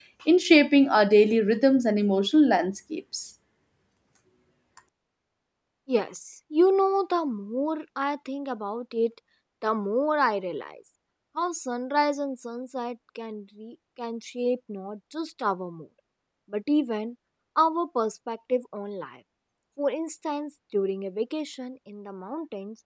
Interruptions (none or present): none